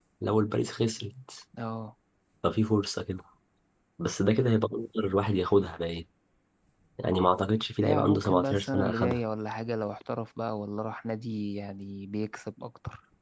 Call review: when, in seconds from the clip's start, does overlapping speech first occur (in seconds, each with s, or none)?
7.8 s